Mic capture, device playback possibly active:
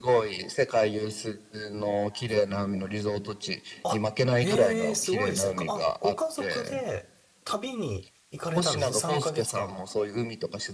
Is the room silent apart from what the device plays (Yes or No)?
No